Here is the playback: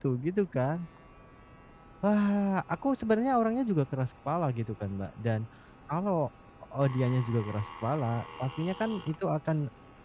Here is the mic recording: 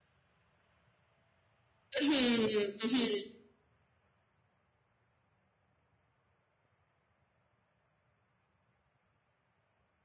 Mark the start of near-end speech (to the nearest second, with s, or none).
2 s